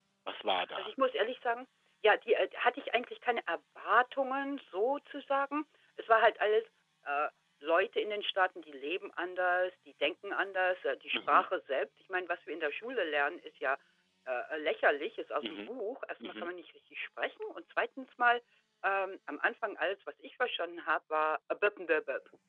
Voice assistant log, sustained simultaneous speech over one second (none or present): none